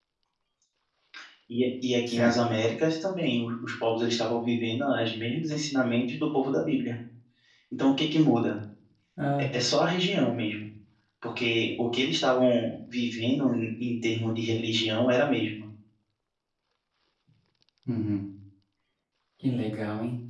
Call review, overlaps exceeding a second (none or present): none